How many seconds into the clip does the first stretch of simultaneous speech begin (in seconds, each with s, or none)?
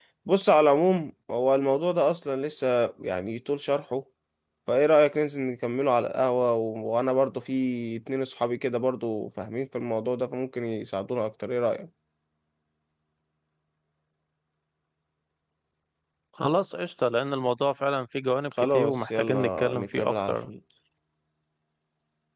18.5 s